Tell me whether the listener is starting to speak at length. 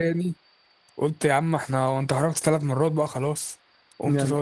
Yes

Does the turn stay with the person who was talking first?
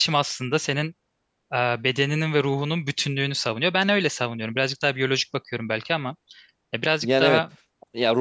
No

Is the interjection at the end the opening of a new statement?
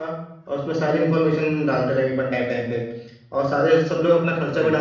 No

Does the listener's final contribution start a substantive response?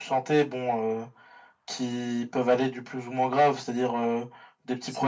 No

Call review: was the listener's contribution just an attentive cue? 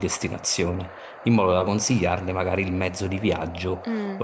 Yes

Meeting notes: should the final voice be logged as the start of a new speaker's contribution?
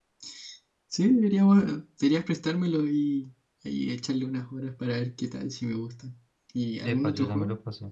Yes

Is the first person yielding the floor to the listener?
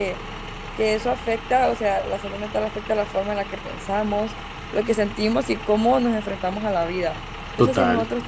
No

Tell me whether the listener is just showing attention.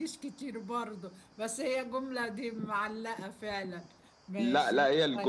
No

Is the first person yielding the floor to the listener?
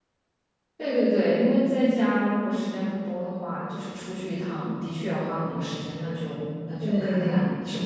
Yes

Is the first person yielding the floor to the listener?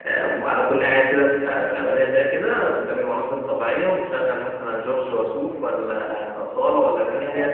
No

